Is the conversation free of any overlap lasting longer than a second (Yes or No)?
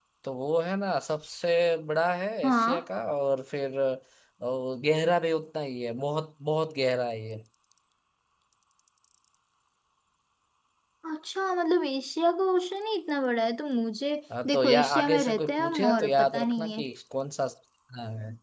No